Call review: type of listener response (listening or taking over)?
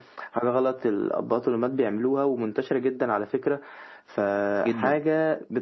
listening